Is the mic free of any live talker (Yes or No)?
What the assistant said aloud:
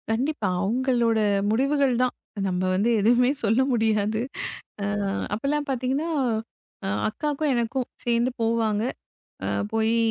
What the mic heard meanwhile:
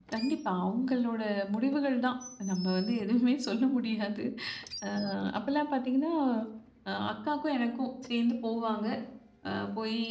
Yes